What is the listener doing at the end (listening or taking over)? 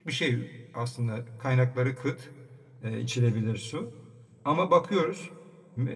listening